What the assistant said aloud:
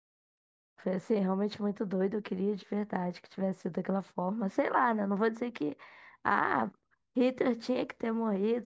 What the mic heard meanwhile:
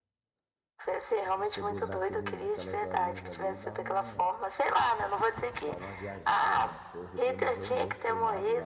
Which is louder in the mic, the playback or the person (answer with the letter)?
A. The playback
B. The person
A